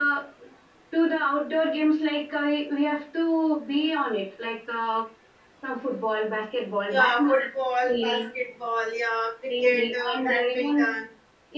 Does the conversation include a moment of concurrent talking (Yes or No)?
Yes